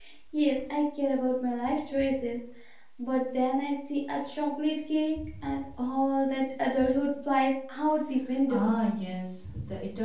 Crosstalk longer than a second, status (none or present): none